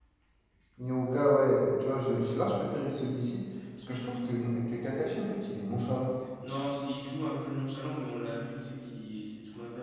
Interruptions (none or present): none